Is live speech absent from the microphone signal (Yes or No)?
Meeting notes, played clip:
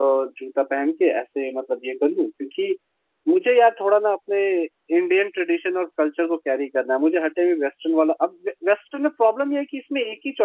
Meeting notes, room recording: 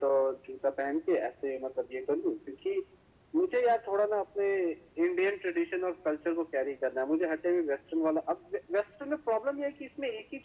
Yes